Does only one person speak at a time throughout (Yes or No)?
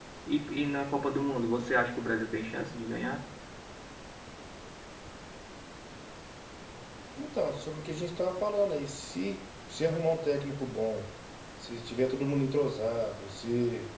Yes